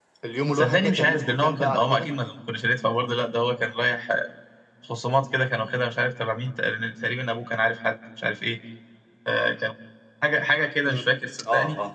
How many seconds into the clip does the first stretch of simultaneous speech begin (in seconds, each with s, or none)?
0.6 s